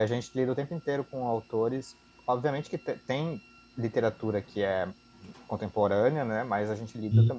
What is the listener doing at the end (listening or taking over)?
listening